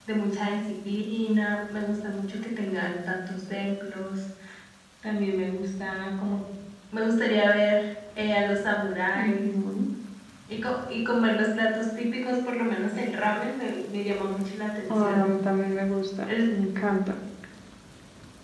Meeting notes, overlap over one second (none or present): none